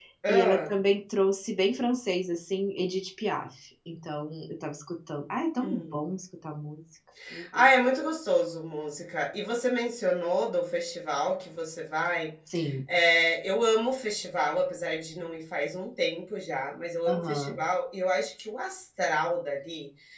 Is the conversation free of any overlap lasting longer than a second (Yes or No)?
Yes